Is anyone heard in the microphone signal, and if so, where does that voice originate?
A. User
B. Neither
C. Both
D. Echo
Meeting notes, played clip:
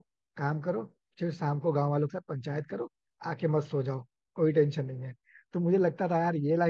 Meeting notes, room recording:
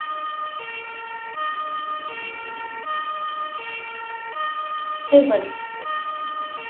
A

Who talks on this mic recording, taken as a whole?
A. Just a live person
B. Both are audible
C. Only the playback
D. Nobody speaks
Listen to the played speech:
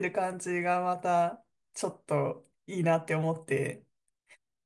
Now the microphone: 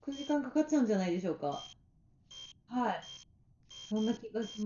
A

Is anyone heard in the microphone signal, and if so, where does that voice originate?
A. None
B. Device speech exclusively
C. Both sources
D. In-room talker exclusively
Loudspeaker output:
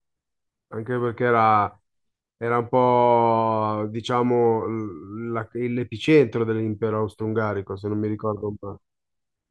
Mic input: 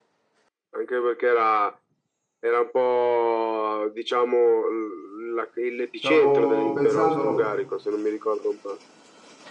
C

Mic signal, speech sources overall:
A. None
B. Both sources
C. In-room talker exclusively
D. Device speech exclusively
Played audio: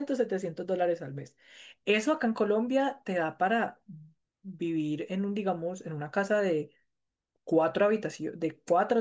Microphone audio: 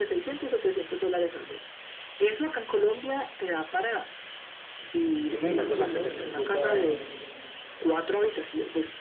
B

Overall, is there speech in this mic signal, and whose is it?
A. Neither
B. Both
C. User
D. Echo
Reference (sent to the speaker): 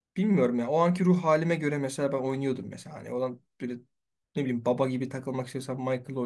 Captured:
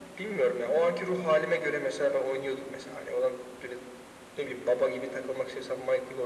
D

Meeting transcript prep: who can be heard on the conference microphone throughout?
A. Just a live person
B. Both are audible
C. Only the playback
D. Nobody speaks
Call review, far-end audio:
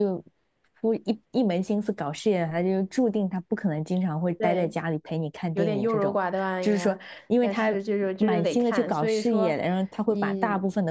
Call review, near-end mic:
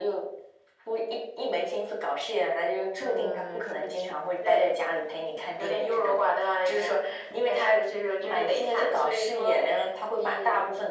B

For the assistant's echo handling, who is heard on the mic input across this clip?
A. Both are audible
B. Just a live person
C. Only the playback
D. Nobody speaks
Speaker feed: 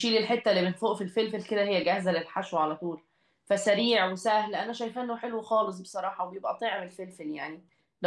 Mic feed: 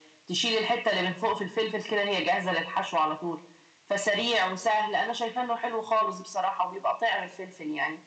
C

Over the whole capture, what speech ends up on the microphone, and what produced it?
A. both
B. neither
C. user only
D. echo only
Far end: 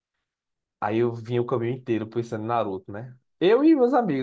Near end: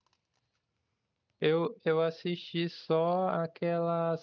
C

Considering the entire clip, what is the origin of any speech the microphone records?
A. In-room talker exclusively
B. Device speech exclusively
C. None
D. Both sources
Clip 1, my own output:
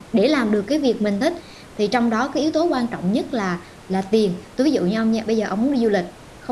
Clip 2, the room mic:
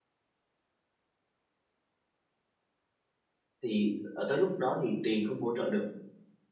A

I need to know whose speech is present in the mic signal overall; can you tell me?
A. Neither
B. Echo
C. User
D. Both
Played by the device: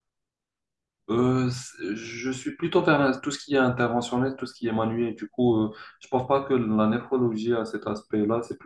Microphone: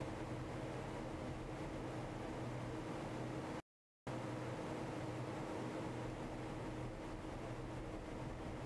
A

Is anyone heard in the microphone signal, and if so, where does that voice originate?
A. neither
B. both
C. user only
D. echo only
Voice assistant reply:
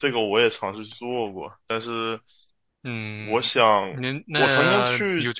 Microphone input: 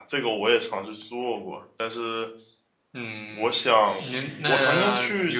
B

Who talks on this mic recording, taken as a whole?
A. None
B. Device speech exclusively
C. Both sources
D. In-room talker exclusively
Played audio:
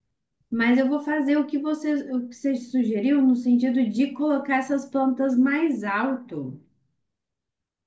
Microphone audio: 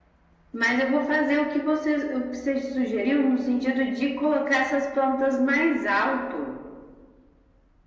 B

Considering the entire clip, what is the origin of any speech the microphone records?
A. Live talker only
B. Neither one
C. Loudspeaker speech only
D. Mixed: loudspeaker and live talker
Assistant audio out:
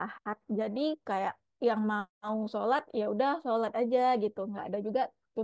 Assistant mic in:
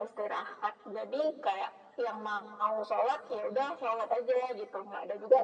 C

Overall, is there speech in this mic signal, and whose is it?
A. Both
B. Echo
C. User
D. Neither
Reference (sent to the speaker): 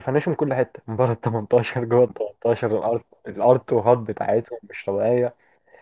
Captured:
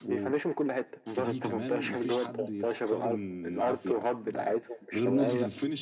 A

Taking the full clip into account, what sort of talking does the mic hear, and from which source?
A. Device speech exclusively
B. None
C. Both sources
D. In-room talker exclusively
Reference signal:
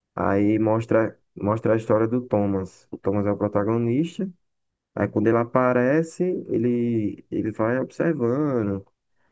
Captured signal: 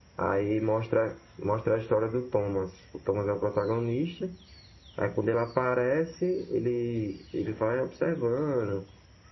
A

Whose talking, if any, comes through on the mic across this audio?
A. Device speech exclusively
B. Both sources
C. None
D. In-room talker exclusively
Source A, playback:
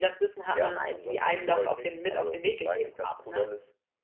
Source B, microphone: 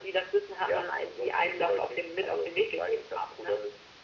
A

